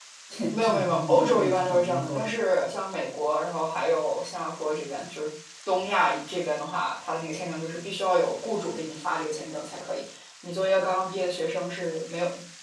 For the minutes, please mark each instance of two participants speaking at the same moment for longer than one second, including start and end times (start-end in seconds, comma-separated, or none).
0.5-2.3